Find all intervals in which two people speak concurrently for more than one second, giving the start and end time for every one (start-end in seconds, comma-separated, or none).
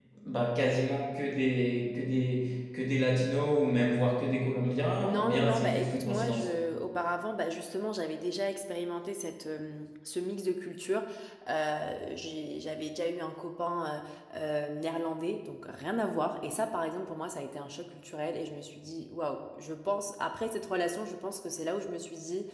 5.0-6.5